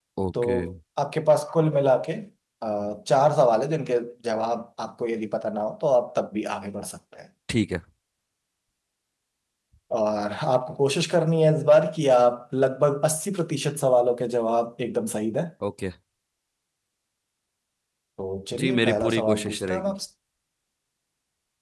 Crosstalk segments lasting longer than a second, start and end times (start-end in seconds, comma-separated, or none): 18.6-19.9